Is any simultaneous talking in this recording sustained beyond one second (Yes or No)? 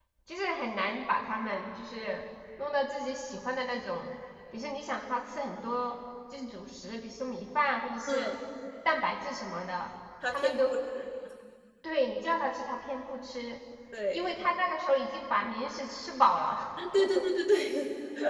No